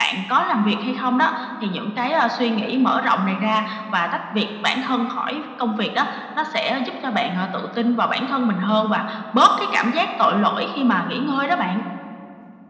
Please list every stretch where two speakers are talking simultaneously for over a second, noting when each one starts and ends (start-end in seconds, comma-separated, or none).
none